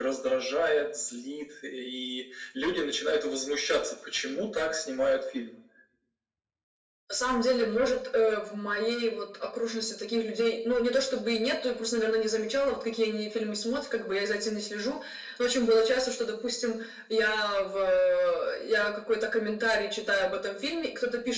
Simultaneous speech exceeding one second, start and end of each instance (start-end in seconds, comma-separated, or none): none